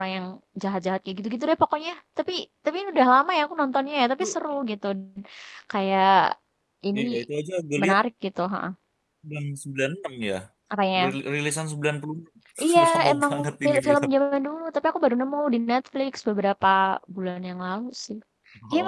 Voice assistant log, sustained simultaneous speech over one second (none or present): present